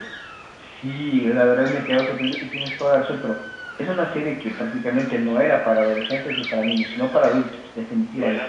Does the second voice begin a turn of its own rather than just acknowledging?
Yes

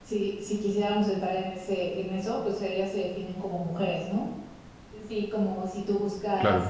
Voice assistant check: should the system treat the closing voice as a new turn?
No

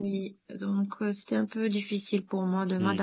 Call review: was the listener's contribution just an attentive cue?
No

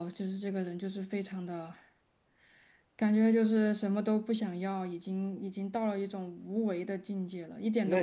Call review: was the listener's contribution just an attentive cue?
No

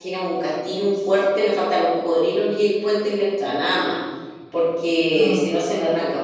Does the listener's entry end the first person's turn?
No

